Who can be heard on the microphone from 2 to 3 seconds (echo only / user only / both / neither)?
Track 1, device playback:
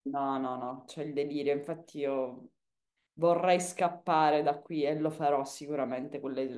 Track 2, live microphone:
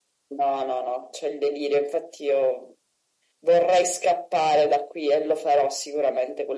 echo only